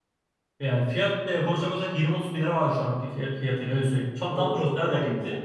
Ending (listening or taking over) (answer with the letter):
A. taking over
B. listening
A